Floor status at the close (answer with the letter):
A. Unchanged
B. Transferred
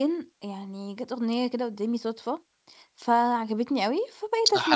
B